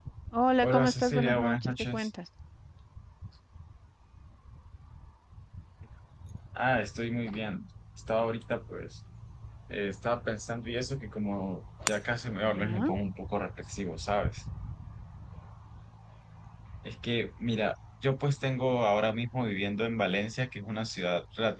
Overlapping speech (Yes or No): Yes